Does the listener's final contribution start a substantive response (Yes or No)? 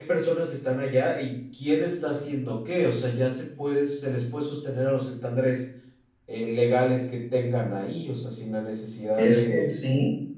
Yes